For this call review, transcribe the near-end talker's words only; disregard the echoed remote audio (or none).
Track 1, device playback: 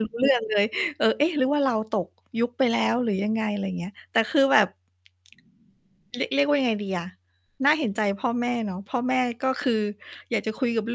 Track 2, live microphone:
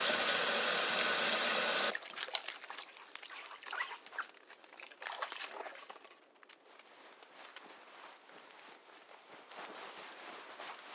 none